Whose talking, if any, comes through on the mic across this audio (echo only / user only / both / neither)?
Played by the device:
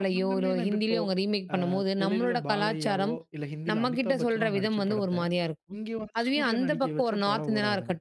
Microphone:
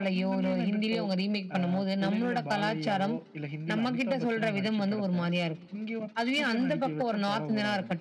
echo only